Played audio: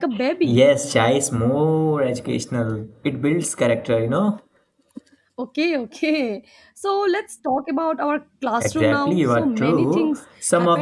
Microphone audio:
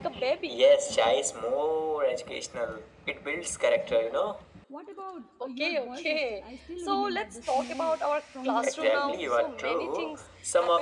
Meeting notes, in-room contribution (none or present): present